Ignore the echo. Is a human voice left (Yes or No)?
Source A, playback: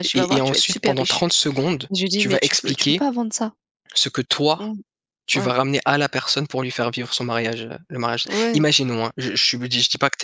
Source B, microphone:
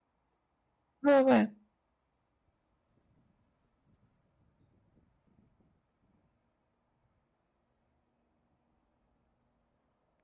Yes